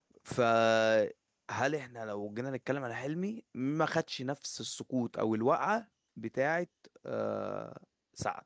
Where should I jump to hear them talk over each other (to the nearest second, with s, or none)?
none